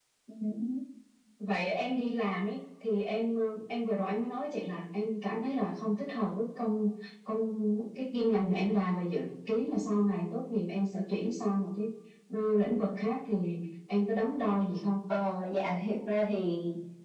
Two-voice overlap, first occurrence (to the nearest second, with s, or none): none